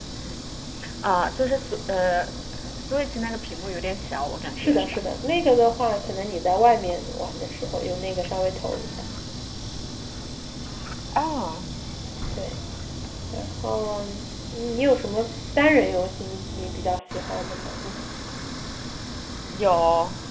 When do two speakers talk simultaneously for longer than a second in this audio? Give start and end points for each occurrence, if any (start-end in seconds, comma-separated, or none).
none